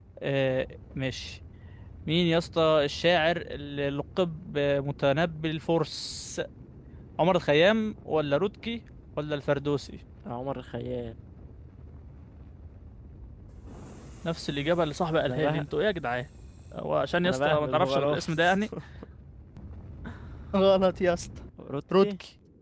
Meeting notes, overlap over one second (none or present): present